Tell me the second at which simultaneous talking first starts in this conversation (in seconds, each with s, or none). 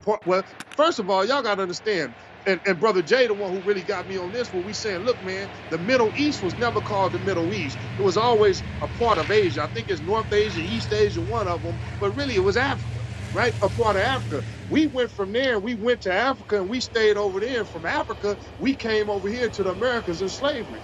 none